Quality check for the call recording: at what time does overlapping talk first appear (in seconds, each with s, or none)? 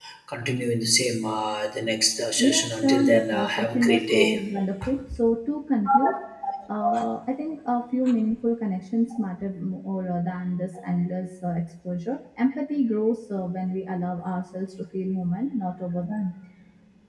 2.4 s